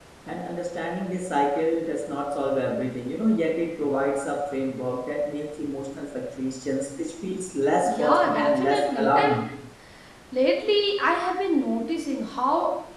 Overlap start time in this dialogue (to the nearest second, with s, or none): 8 s